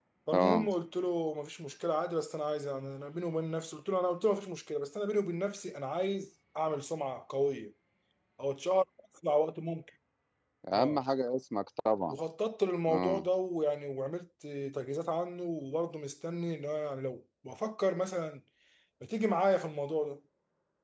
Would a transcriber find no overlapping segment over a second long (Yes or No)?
Yes